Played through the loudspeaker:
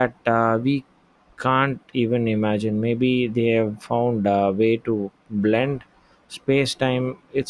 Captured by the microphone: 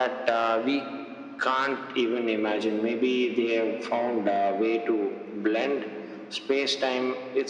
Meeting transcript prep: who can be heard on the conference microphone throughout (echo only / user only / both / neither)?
echo only